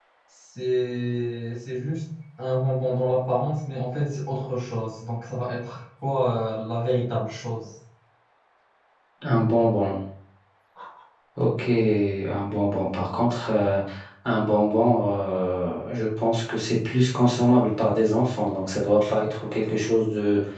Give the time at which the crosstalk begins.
none

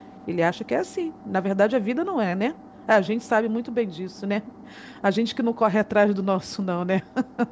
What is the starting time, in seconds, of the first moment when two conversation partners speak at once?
none

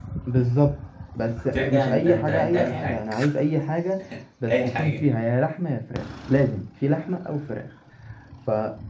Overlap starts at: 1.5 s

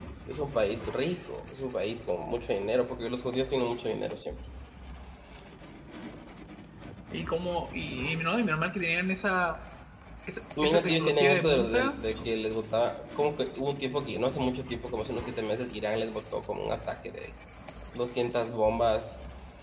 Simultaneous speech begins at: 10.6 s

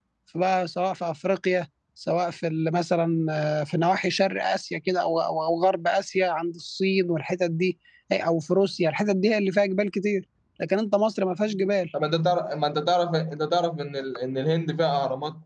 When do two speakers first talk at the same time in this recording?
none

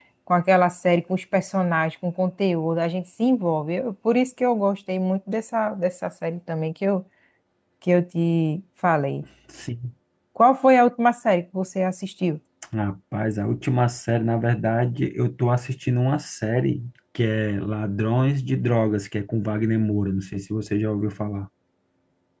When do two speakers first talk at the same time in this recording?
none

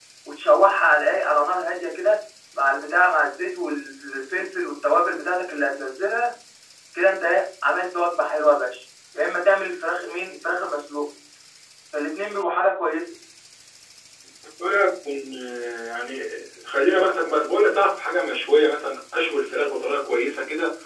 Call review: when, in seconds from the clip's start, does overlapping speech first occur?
none

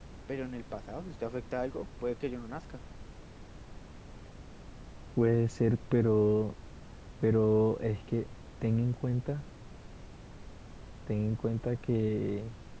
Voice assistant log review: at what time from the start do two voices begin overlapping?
none

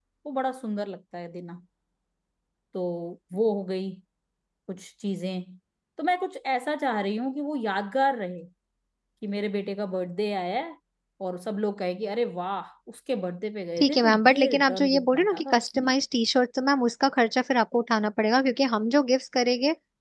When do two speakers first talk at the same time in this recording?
13.8 s

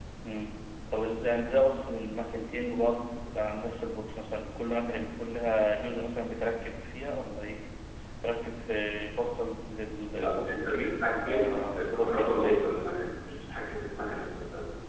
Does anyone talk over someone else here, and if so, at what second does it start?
10.1 s

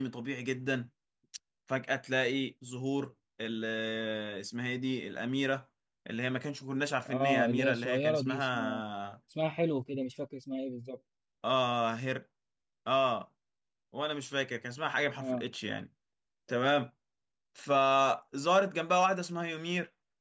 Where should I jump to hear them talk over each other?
7.1 s

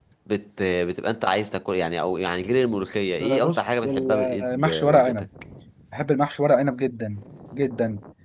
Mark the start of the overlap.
3.2 s

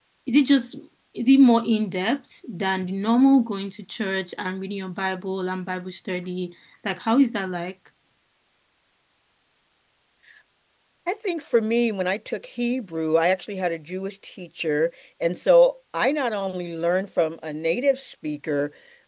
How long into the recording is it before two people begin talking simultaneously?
none

